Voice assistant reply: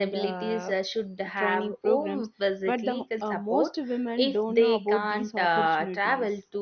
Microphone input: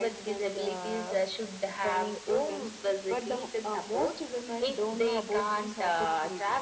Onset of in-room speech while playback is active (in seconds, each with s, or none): none